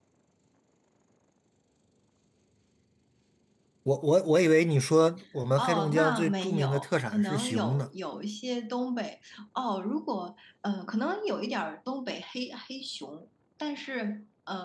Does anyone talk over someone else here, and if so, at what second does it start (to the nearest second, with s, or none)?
6 s